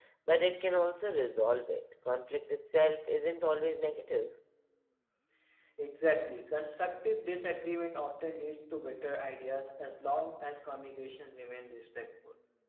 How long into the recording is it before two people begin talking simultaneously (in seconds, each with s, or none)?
none